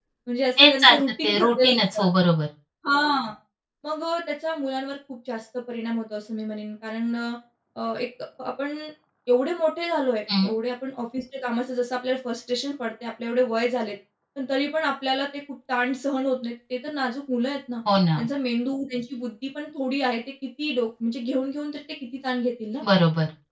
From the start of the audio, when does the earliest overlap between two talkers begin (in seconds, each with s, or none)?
0.6 s